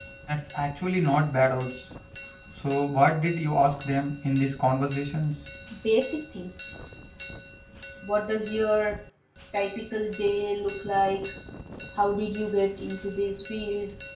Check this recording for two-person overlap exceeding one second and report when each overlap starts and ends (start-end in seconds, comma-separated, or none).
none